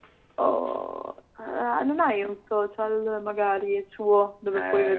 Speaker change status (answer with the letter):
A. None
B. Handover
B